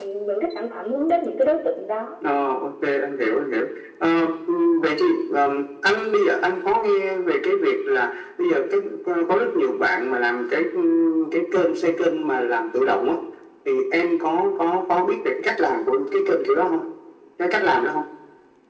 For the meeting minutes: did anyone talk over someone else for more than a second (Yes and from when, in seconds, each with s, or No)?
No